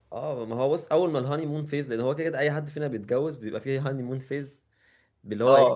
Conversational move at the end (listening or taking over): listening